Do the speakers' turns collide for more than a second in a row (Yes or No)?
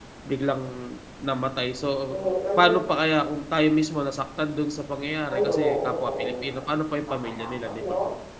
Yes